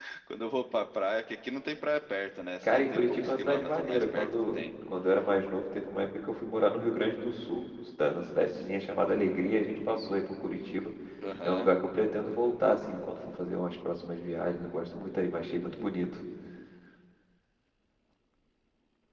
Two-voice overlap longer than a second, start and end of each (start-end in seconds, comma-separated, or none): 2.6-4.6